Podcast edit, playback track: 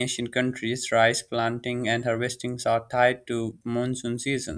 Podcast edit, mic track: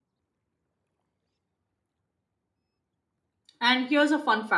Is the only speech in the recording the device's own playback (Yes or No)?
No